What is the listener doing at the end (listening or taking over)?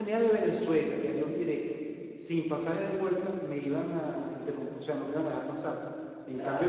listening